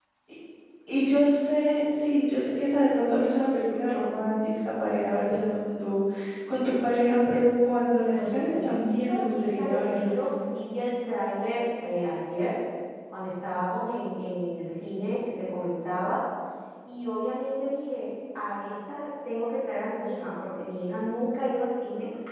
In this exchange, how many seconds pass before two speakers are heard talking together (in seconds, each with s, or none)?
8.1 s